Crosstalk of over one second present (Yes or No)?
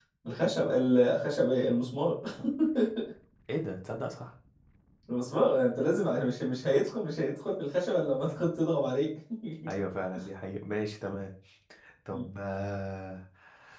No